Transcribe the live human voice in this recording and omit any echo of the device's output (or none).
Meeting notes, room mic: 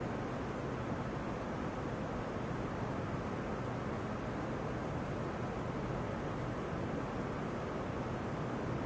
none